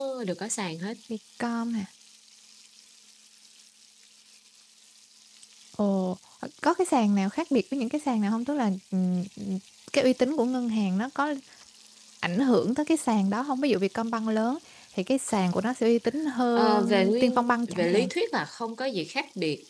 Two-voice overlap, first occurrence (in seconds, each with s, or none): 16.6 s